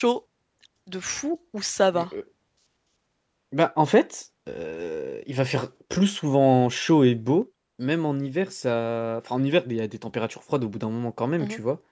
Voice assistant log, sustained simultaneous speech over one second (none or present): none